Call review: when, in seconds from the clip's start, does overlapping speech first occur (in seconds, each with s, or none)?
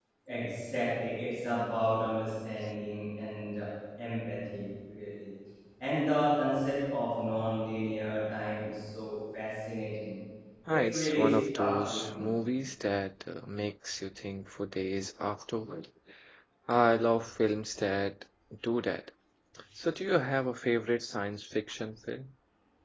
10.7 s